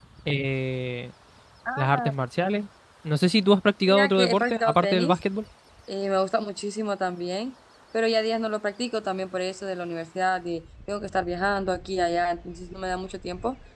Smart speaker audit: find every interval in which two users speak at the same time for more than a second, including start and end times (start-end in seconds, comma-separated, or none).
3.9-5.2